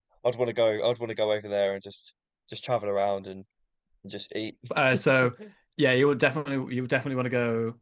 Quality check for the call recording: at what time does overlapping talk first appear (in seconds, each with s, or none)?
none